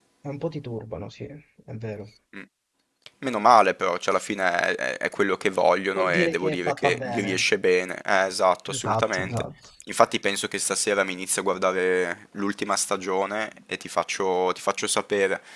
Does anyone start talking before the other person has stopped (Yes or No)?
Yes